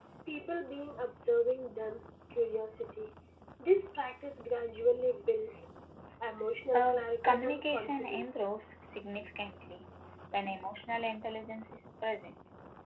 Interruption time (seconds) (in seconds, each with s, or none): 6.7 s